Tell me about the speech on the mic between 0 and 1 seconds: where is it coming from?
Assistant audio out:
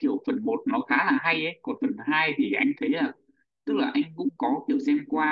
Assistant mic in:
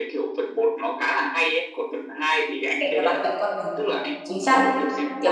echo only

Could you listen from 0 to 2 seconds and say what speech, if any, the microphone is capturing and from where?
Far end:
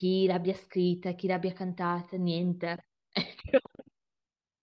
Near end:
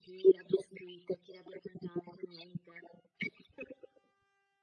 echo only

